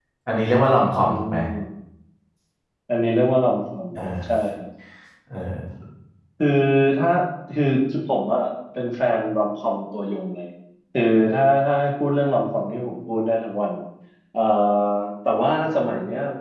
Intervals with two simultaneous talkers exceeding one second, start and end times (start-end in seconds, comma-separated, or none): none